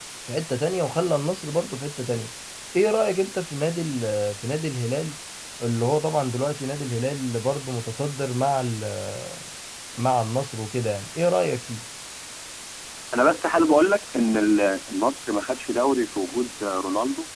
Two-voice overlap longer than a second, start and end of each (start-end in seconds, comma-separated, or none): none